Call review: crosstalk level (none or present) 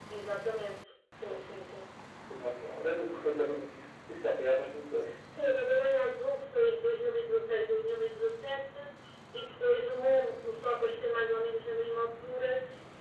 none